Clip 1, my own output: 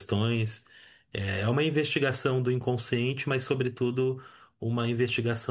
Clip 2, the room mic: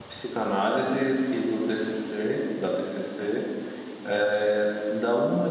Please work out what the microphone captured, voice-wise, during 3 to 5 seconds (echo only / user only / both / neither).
user only